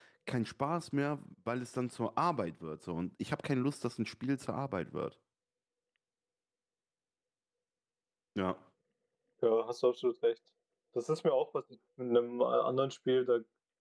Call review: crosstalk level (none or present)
none